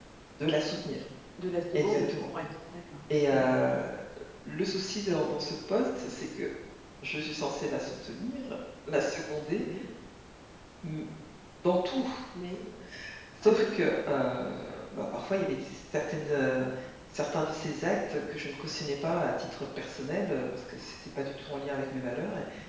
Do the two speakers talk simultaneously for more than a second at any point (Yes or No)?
No